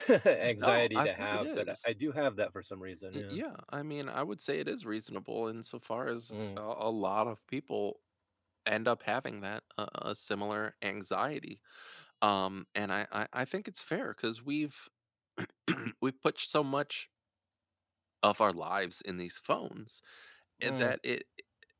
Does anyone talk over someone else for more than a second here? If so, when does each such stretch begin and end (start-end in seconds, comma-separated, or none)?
0.6-1.9